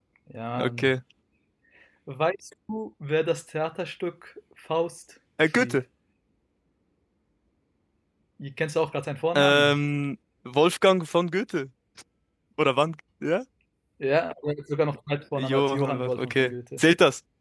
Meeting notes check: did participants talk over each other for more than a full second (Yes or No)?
Yes